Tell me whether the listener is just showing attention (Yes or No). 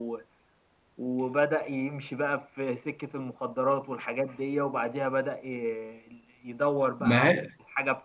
Yes